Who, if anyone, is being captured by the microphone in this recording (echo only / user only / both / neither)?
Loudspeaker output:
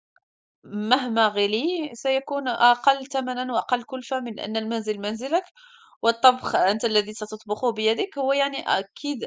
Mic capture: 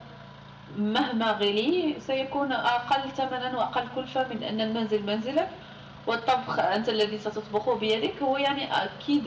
echo only